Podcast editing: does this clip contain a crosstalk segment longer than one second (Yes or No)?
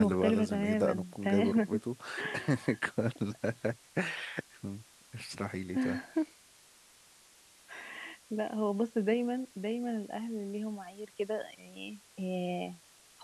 Yes